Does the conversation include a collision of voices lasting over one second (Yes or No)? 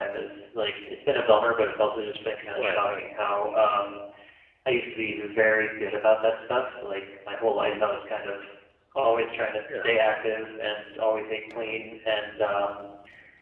No